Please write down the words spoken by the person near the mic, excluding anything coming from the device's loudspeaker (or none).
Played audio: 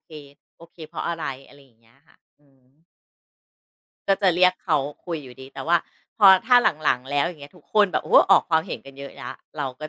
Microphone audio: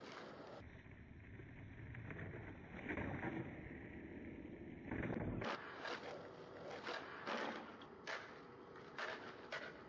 none